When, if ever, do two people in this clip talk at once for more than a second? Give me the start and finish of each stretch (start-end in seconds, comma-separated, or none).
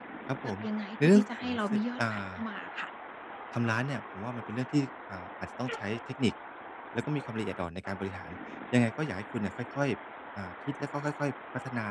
1.0-2.4